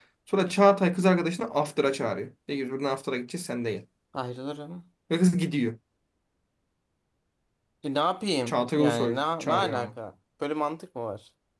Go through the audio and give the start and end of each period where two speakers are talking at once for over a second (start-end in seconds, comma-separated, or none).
8.5-9.9